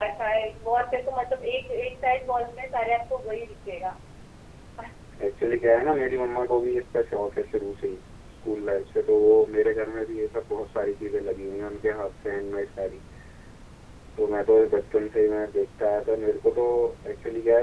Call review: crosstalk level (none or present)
none